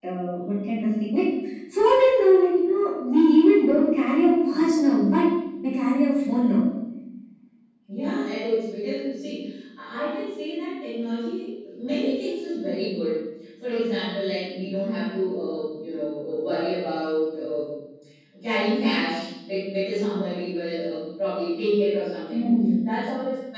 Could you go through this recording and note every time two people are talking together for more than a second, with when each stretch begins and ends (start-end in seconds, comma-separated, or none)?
none